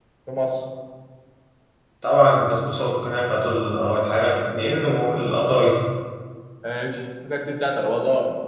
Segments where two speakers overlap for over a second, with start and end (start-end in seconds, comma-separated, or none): none